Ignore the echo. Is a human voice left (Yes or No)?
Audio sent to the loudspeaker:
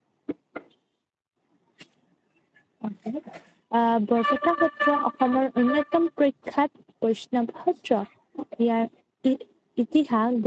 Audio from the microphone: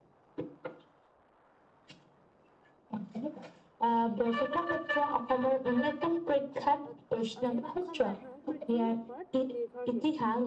Yes